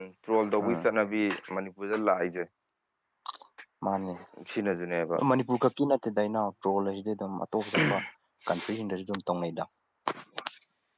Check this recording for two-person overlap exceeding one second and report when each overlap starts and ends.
none

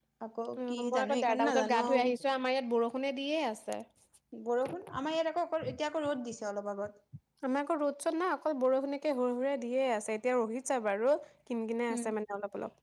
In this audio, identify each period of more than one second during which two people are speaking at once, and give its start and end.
0.6-2.0

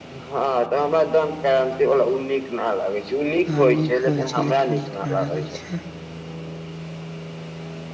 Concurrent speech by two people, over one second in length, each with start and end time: 3.6-5.4

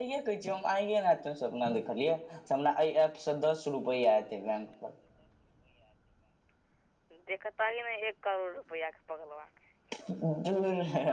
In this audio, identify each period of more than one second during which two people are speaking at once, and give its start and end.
none

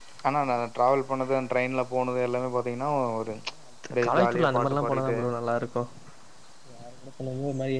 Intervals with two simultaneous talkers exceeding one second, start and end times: 3.9-5.2

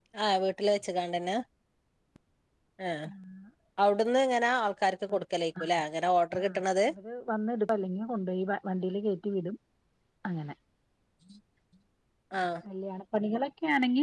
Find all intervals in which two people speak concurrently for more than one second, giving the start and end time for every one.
none

